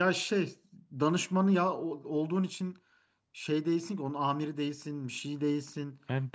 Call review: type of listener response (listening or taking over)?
taking over